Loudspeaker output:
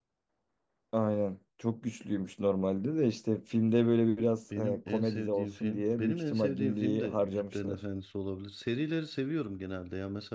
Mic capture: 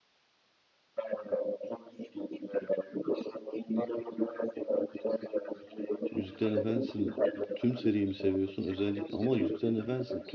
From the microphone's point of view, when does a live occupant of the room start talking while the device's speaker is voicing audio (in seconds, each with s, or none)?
6.1 s